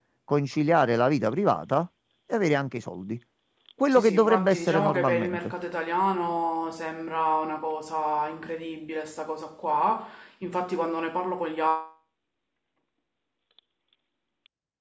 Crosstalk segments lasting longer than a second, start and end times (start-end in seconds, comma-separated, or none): 3.9-5.5